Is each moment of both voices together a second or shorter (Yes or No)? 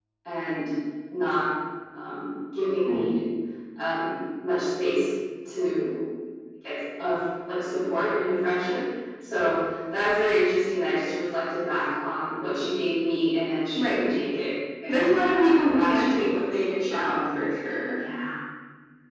No